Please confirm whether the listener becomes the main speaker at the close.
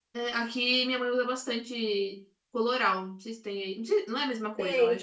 Yes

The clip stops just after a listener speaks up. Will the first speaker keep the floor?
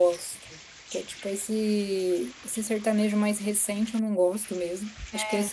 Yes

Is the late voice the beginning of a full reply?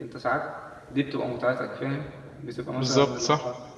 No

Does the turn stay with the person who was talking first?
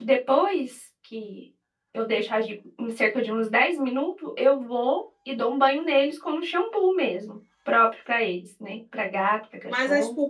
No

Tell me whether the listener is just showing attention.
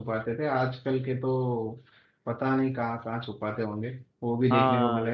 No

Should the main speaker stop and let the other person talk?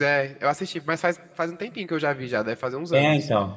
Yes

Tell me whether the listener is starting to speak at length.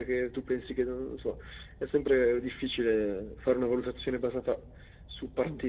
Yes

